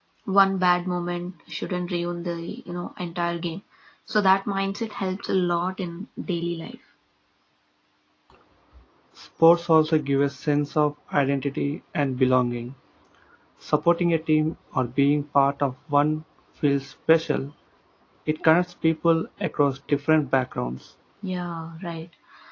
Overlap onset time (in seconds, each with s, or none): none